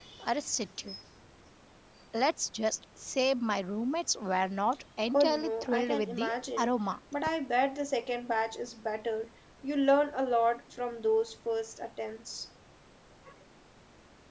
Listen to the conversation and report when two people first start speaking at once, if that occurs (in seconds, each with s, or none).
5.1 s